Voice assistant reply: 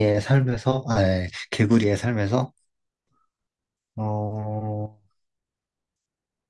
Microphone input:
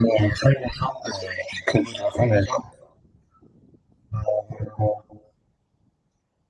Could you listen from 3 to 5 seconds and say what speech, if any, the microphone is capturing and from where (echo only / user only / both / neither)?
echo only